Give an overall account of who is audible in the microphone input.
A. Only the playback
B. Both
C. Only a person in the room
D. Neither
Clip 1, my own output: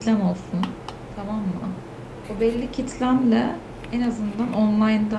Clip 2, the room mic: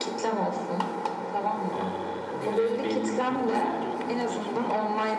B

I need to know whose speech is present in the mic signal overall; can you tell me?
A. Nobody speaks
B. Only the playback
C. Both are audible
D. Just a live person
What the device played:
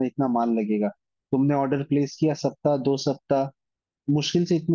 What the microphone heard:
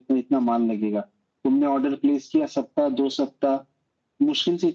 B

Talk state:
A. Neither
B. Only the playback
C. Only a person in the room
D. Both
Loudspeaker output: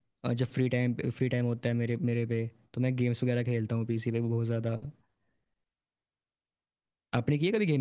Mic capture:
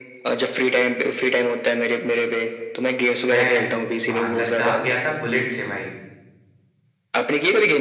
D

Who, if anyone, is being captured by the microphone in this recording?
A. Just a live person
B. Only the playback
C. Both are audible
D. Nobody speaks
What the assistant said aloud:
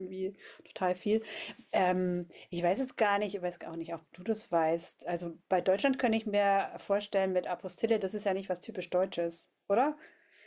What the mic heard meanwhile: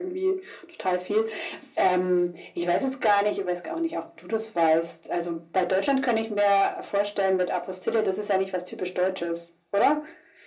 B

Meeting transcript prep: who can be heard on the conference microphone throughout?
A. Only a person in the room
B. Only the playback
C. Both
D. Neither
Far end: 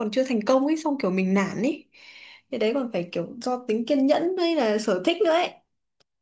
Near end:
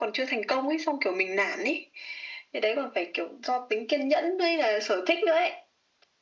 B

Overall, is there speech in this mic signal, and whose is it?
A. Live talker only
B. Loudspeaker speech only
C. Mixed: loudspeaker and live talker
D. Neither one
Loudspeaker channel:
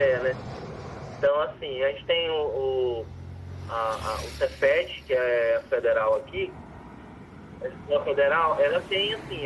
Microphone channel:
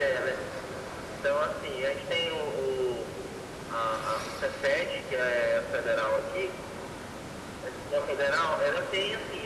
B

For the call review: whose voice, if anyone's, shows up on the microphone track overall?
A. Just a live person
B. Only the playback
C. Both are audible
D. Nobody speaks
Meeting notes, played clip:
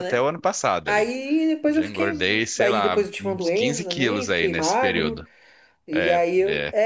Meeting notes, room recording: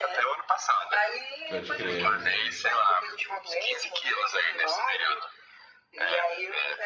C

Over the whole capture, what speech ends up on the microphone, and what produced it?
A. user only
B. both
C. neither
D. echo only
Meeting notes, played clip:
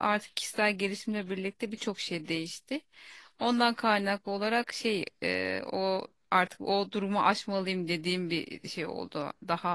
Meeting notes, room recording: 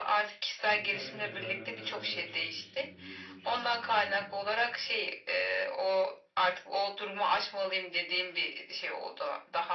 B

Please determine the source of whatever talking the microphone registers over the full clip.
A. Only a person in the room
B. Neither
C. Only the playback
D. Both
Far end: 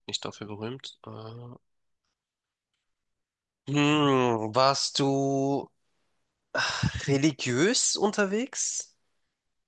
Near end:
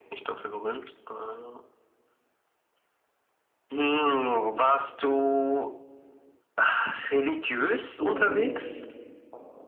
D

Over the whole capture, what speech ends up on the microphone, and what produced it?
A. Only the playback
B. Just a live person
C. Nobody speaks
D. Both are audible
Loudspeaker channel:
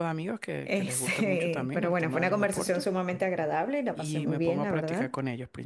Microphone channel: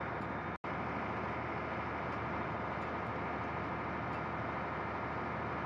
C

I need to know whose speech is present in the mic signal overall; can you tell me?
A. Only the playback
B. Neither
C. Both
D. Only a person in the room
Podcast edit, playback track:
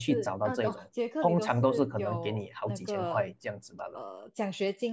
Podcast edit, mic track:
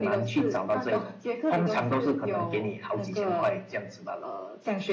A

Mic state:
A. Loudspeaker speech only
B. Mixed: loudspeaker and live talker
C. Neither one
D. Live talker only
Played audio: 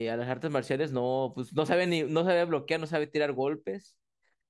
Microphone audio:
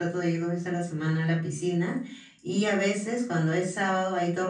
D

